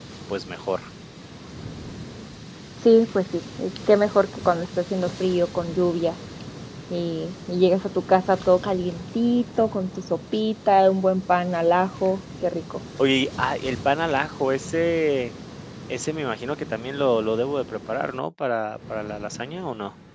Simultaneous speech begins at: none

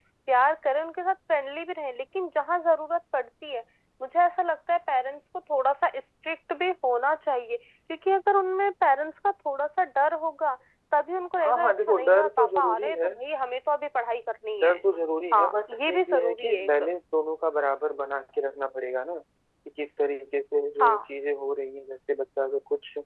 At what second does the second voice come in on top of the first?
11 s

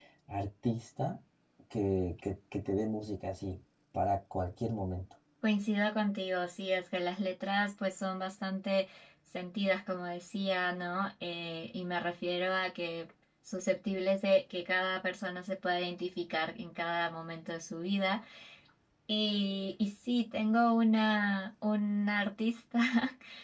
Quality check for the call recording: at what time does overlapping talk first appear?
none

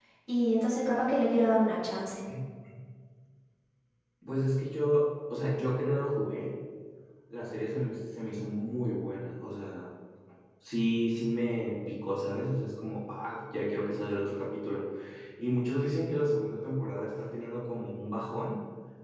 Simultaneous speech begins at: none

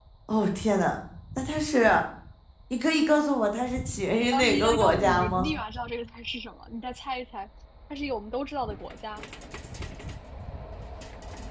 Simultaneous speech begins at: 4 s

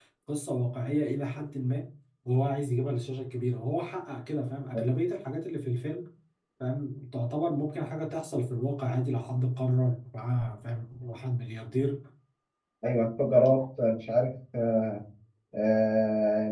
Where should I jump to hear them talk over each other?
none

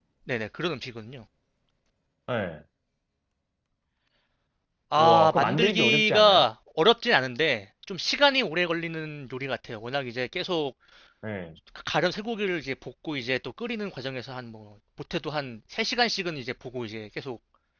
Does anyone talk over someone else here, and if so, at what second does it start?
5 s

